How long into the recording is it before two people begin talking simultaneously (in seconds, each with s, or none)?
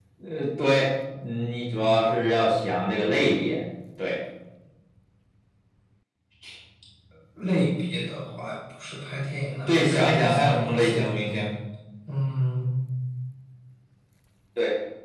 9.7 s